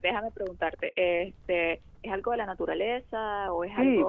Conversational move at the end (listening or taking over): taking over